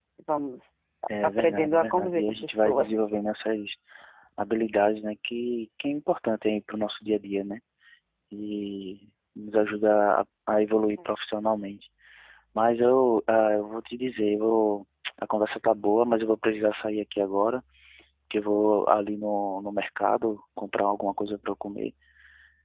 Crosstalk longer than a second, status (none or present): present